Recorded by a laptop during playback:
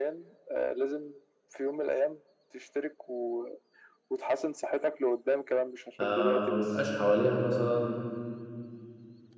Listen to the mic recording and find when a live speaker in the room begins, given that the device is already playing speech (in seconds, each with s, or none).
6.0 s